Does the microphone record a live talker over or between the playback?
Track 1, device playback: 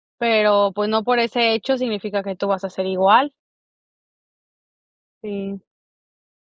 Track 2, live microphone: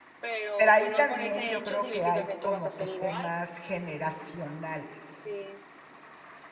Yes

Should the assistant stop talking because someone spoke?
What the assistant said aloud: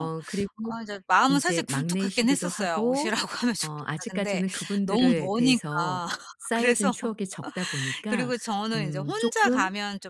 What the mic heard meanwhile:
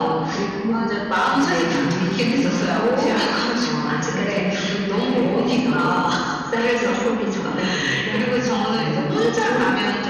No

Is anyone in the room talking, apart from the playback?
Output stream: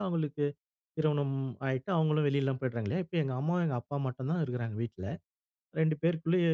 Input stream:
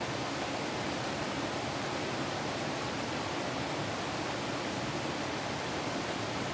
No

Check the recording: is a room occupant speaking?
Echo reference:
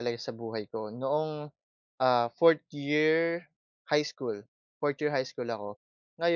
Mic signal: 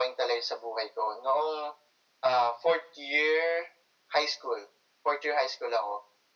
No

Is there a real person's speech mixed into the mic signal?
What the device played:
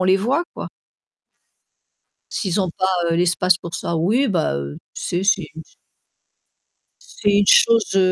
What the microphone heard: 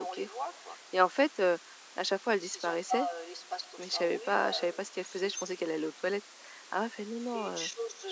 Yes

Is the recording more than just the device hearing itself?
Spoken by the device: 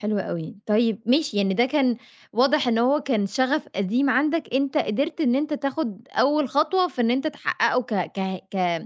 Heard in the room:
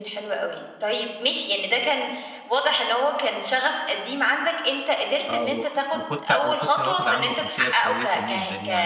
Yes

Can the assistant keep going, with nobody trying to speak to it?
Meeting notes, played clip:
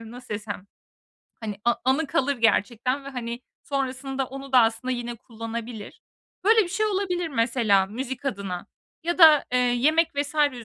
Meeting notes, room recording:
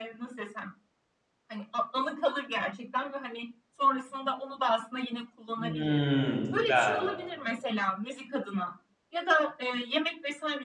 No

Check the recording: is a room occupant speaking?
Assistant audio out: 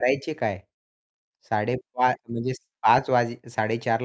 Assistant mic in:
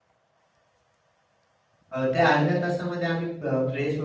Yes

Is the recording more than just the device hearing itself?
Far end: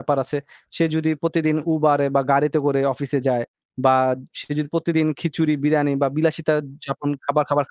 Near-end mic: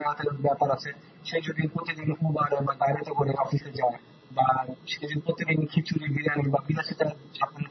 No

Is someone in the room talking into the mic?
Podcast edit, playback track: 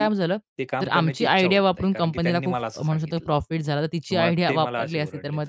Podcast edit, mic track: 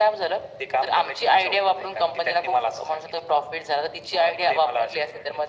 No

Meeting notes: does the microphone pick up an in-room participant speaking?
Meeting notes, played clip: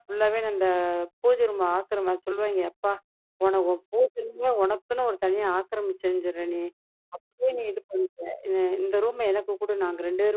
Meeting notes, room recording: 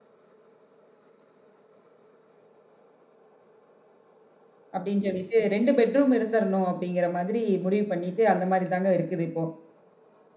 Yes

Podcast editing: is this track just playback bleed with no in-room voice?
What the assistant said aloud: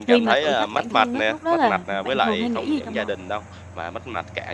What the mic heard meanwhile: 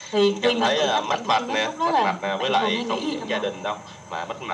Yes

